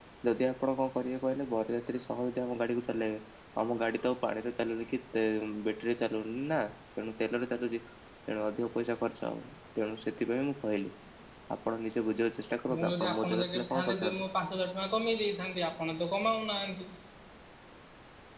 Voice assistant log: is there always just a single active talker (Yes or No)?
No